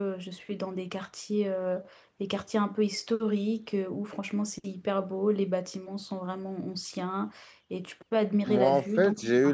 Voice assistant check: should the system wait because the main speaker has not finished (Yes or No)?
No